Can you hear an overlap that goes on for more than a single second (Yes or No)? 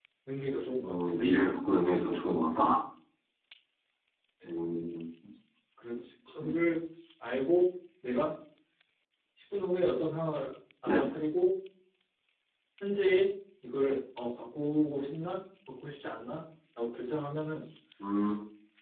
No